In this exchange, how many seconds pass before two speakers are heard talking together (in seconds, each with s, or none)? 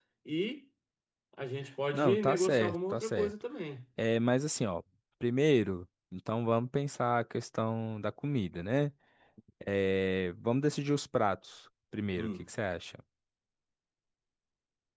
1.9 s